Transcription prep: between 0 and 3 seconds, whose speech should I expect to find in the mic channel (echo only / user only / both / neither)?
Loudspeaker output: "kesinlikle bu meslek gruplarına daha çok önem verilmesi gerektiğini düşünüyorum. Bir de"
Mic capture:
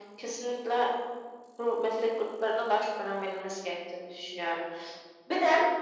echo only